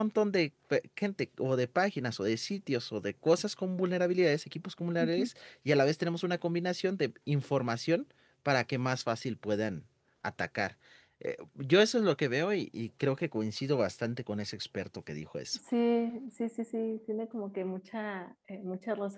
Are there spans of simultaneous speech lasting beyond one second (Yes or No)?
No